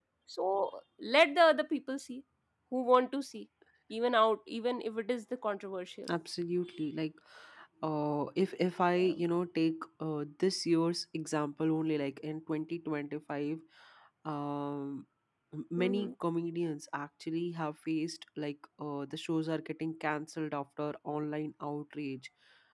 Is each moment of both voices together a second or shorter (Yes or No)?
Yes